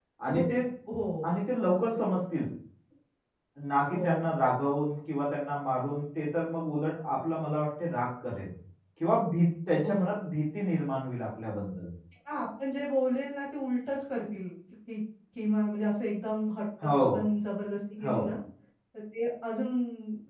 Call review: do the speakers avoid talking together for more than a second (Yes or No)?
Yes